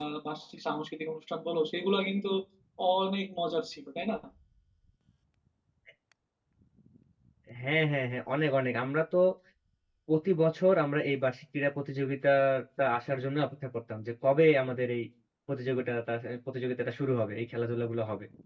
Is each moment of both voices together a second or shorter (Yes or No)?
Yes